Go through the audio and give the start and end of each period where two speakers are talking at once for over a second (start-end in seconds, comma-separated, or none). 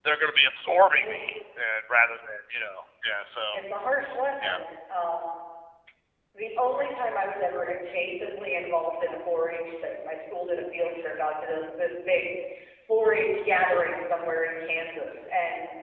none